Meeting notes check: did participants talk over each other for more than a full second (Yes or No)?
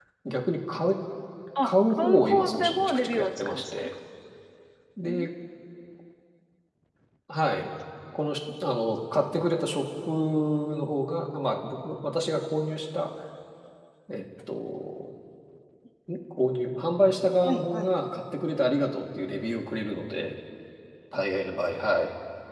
Yes